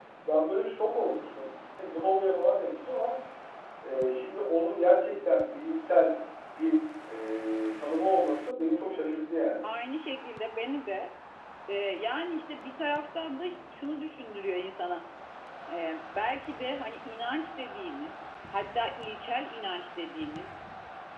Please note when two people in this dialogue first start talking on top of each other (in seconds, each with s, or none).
none